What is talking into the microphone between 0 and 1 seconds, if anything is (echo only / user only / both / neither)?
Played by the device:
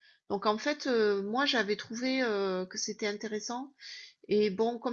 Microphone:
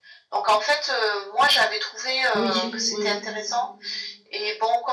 echo only